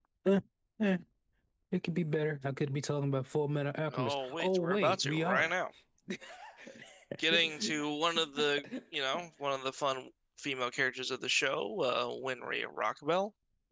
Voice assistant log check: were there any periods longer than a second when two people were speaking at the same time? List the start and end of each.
3.9-5.6

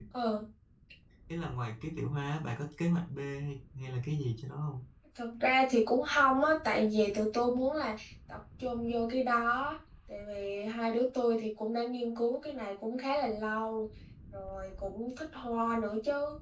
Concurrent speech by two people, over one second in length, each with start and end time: none

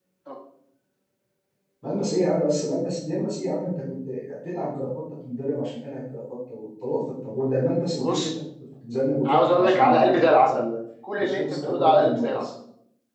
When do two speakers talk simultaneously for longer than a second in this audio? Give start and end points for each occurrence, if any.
9.2-10.6, 11.2-12.4

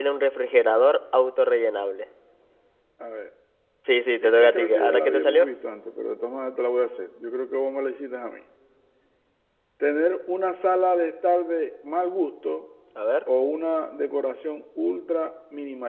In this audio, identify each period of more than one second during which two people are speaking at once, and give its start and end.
4.2-5.5

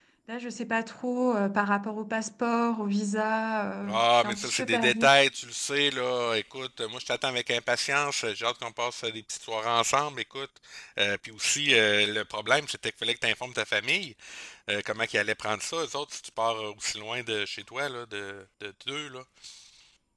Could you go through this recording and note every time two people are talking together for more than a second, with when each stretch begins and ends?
3.9-5.1

